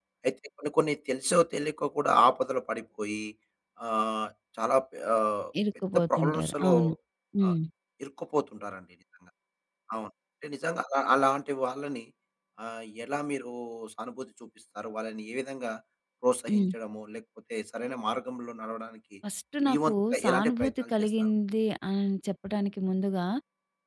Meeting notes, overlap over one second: present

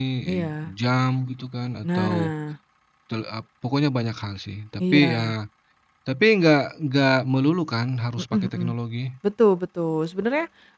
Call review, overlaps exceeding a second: none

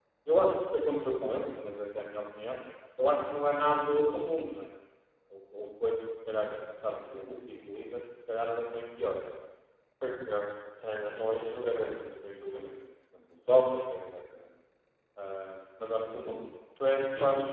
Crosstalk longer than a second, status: none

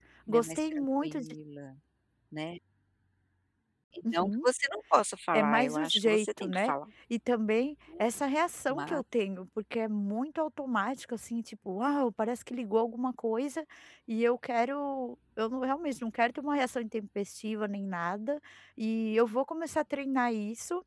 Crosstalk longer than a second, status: present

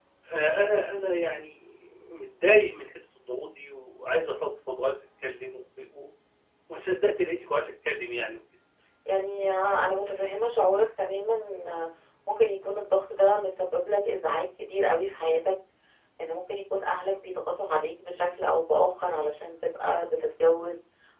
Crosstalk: none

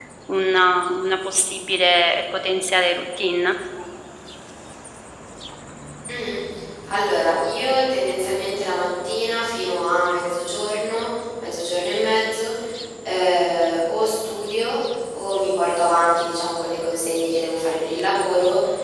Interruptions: none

